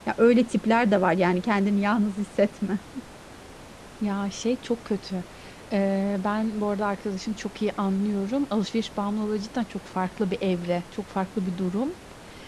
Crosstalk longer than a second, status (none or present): none